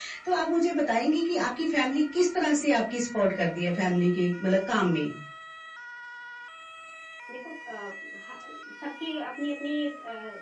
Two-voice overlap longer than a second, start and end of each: none

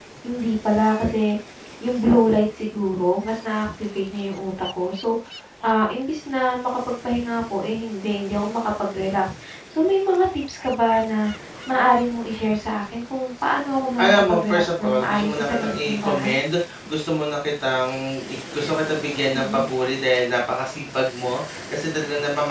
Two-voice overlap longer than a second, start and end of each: 14.0-16.4

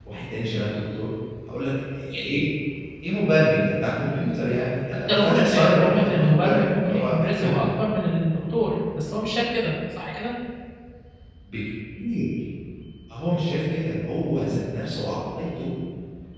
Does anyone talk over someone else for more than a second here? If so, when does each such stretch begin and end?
5.1-7.2

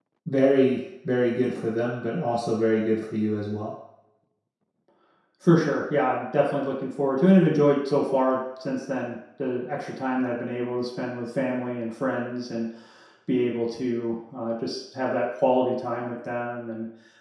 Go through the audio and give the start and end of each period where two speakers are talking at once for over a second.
none

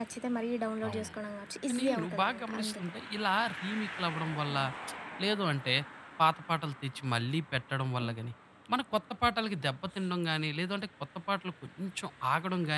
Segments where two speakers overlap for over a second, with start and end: 1.7-2.9

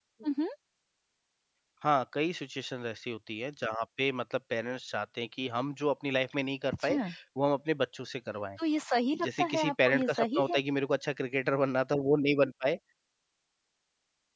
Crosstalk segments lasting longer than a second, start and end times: 9.2-10.6

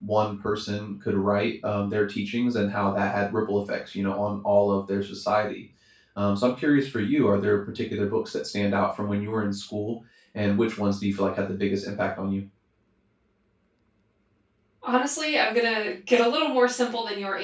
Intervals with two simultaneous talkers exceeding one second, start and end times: none

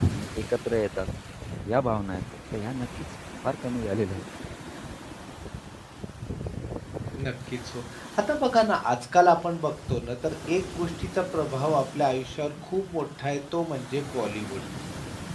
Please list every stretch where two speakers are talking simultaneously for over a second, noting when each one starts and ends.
none

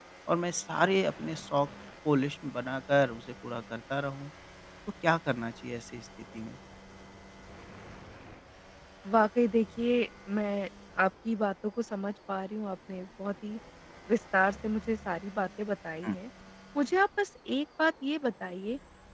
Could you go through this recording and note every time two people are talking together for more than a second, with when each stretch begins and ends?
none

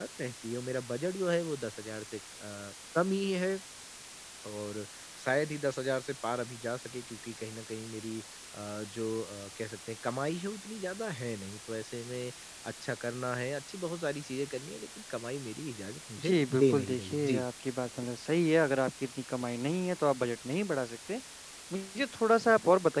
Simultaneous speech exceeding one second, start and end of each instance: 16.2-17.4

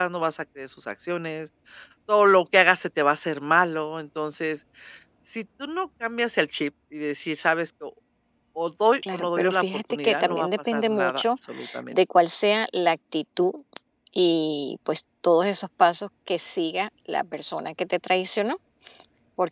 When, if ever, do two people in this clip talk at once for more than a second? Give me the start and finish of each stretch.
9.1-11.2

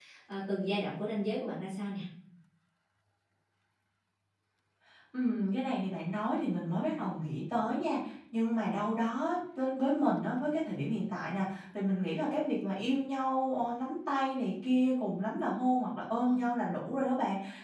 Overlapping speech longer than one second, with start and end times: none

